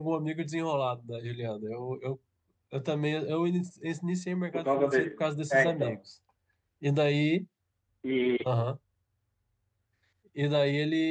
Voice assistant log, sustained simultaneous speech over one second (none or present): present